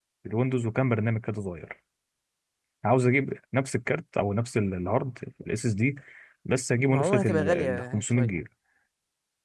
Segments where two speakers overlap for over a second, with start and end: 6.9-8.4

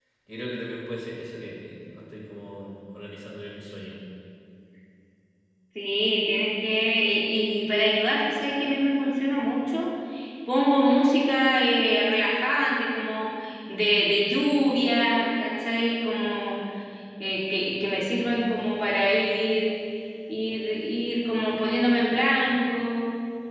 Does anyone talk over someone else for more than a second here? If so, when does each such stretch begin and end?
none

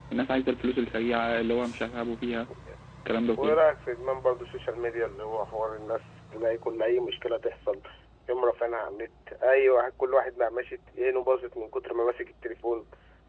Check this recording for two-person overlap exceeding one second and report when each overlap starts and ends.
none

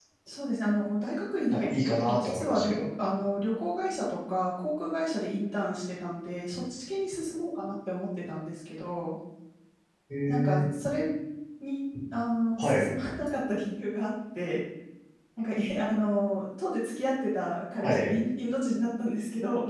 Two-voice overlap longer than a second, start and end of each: 1.5-2.8

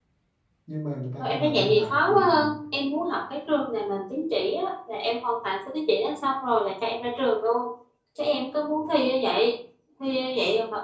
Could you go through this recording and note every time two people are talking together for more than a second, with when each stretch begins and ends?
1.2-2.5

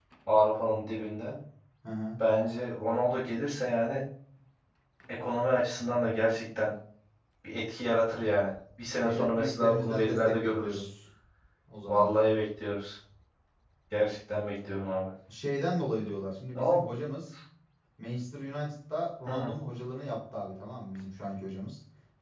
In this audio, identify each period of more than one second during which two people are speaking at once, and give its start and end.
9.0-10.9

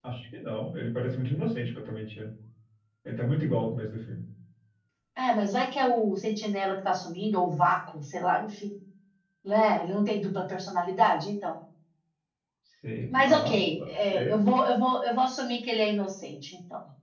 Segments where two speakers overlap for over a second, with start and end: 13.1-14.3

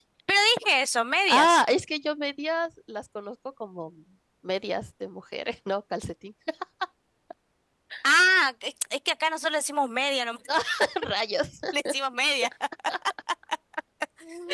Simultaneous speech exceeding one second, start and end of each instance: none

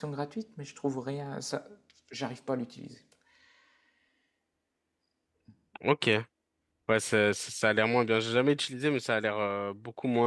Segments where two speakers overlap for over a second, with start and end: none

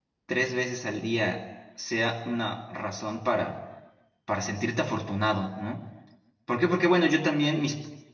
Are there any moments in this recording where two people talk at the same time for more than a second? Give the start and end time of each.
none

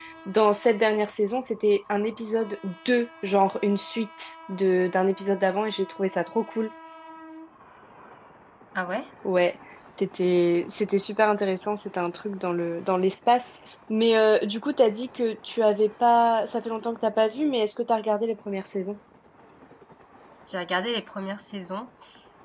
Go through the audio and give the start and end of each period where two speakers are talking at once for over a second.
none

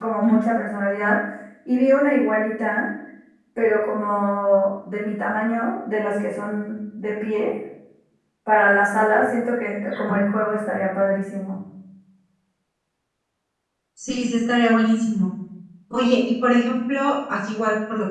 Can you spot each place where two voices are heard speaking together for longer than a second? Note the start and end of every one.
none

